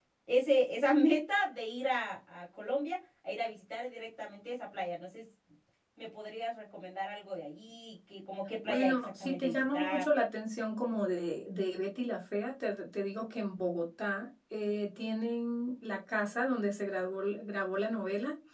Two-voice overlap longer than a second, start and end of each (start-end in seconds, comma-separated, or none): 8.6-10.1